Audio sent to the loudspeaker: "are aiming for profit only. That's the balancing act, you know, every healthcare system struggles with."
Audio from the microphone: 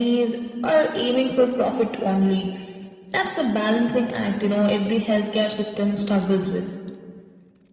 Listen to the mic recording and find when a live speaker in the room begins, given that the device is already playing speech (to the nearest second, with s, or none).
none